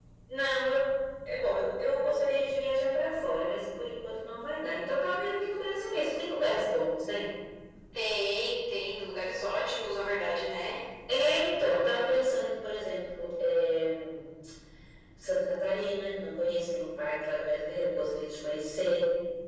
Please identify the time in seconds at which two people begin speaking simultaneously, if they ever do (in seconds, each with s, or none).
none